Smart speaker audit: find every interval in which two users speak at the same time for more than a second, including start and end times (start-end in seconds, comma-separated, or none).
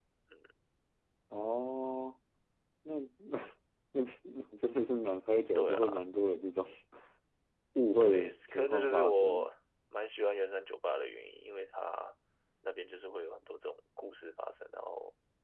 8.0-9.4